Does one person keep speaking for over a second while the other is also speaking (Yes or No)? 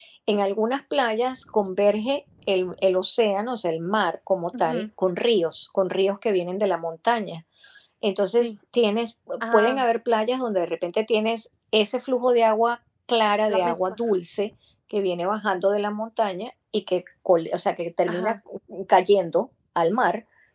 No